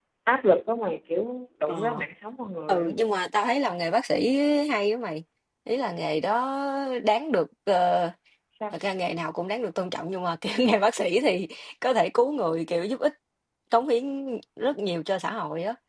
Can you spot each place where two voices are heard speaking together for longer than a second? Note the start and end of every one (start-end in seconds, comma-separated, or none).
none